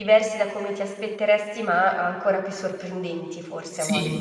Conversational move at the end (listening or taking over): taking over